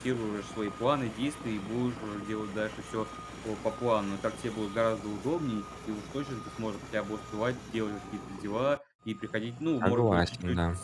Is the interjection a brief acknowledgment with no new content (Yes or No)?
Yes